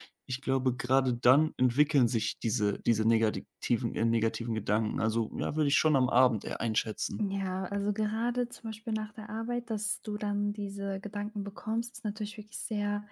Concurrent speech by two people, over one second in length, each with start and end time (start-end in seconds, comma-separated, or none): none